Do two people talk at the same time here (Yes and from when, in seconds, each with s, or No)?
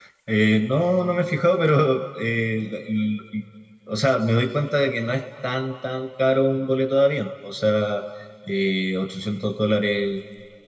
No